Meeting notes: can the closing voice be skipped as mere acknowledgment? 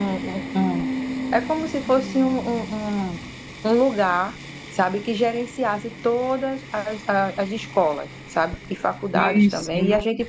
Yes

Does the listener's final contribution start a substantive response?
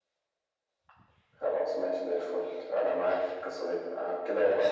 No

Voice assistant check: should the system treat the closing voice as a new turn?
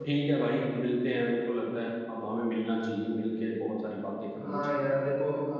Yes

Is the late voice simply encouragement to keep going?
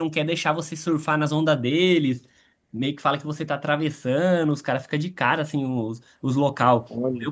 Yes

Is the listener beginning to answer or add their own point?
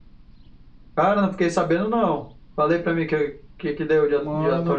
Yes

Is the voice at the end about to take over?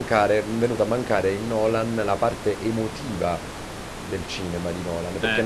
Yes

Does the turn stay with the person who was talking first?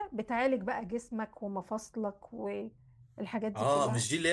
No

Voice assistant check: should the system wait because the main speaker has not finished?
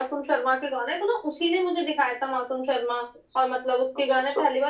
Yes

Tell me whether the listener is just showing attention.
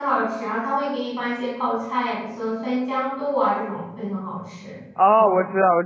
No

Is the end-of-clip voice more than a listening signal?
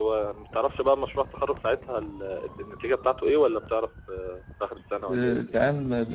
Yes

